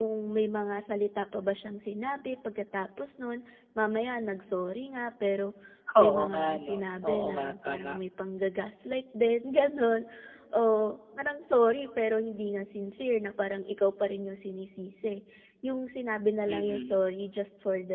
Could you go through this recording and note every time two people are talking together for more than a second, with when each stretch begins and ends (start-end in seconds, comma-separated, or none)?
6.0-8.0